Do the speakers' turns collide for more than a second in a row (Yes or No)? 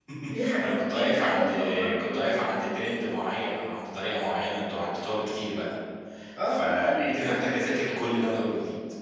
Yes